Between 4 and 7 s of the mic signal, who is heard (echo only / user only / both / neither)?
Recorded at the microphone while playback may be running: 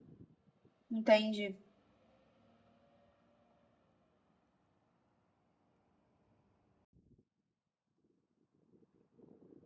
neither